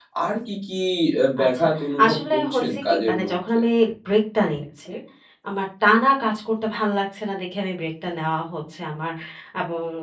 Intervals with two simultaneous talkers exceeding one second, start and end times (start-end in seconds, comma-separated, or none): 2.0-3.6